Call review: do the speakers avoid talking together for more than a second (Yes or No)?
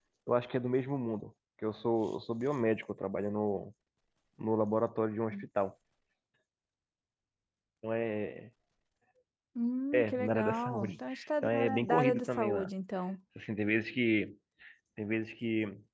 No